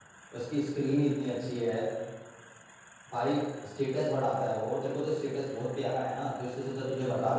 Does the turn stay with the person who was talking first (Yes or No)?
No